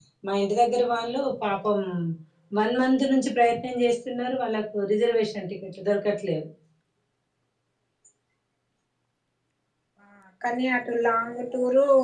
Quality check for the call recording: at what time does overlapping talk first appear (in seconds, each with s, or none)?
none